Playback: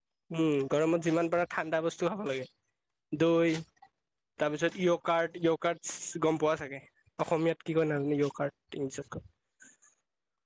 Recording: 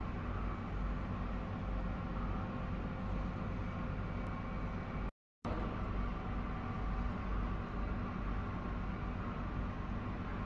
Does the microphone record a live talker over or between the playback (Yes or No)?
No